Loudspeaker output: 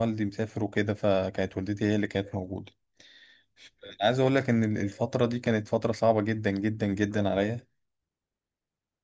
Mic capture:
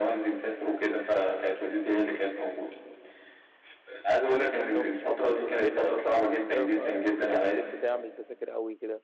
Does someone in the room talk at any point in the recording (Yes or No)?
Yes